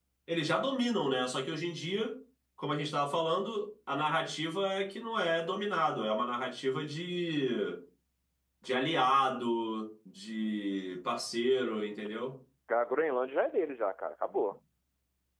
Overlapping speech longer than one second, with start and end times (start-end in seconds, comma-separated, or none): none